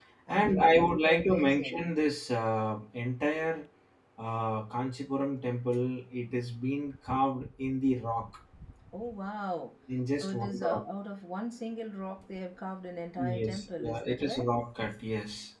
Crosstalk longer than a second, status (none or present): present